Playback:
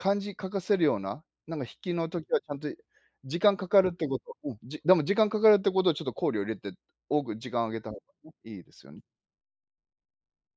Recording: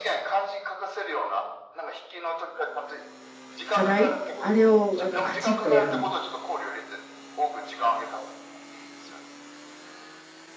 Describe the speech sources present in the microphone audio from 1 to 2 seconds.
echo only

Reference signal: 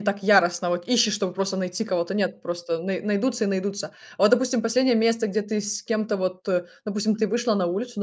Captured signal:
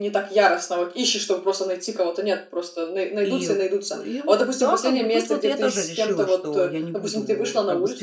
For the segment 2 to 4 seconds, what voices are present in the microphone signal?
both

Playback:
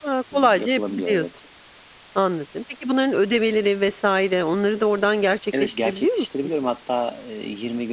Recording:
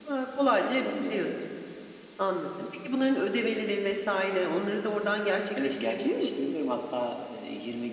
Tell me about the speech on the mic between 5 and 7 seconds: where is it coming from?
echo only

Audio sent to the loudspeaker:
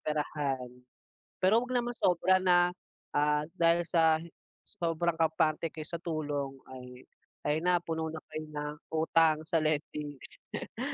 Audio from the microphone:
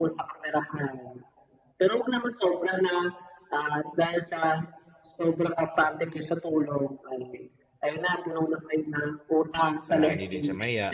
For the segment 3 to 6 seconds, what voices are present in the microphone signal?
echo only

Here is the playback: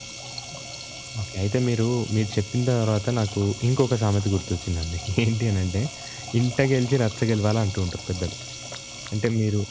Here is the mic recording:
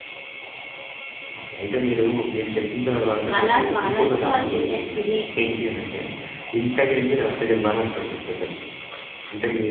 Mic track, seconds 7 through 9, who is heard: echo only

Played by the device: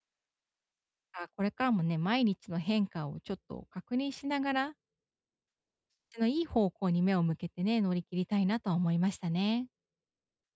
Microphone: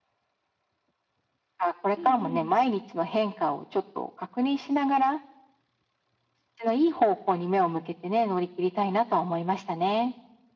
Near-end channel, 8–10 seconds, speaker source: echo only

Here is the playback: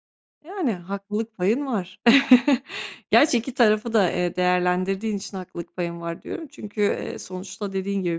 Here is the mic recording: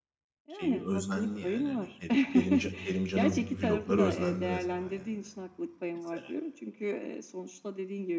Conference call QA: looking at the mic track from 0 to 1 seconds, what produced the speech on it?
both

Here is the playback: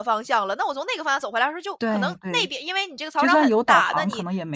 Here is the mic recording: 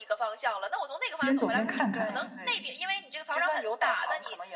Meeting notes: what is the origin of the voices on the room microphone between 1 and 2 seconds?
both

